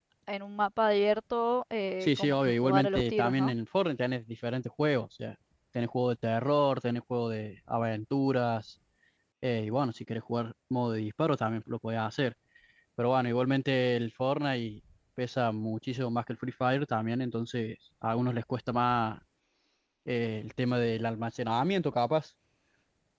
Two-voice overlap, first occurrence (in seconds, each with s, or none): 2.0 s